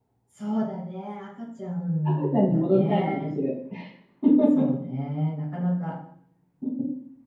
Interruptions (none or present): present